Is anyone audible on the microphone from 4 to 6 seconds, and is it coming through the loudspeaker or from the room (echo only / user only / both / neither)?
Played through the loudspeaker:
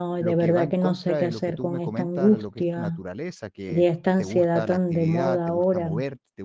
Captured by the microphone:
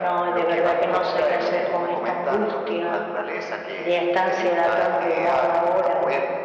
echo only